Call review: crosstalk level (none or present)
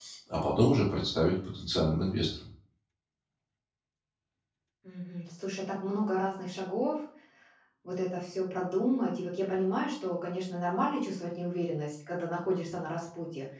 none